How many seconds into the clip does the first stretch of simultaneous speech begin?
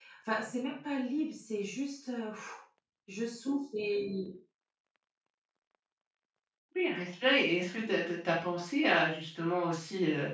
none

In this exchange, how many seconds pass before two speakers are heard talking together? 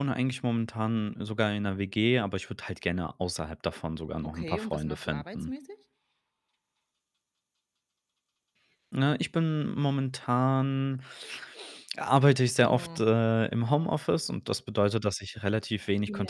4.2 s

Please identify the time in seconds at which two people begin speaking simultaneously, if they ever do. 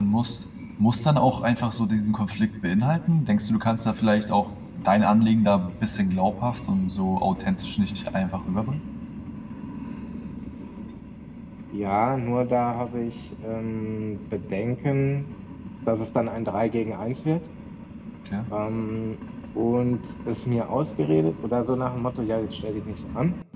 none

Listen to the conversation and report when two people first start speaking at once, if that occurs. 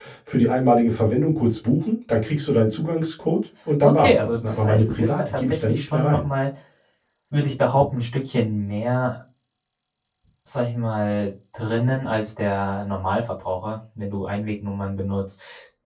3.8 s

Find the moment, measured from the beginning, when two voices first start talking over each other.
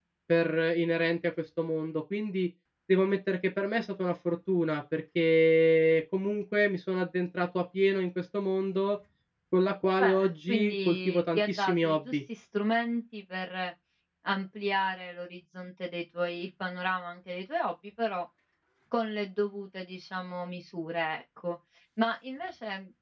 10.0 s

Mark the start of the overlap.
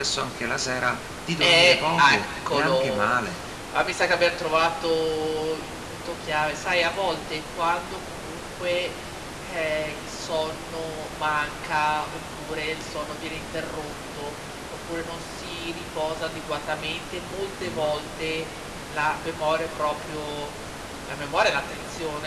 1.4 s

